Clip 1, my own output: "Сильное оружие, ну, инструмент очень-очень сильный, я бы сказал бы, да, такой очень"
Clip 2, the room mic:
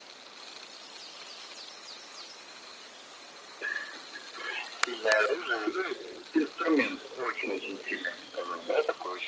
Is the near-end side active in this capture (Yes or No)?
No